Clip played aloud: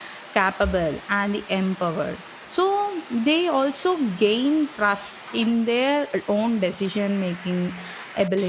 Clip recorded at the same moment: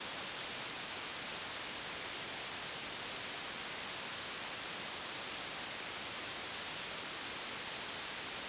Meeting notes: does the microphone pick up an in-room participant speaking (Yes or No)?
No